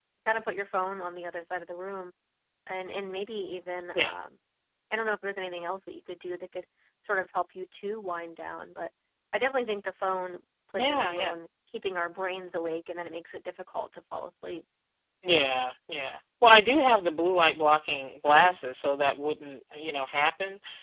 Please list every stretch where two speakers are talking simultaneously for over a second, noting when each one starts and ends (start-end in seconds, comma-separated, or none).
none